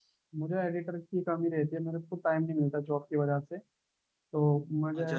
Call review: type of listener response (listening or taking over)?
taking over